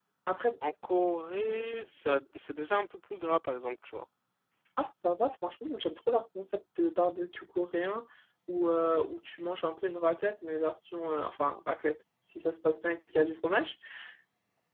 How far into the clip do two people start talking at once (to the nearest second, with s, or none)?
none